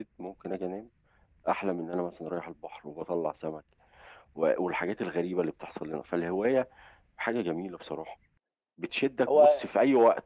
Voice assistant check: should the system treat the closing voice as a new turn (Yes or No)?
No